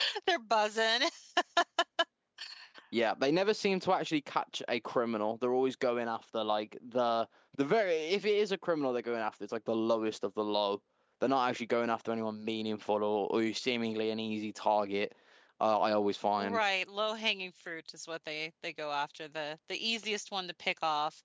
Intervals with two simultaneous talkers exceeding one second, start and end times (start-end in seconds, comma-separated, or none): none